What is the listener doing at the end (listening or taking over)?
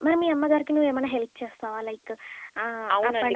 taking over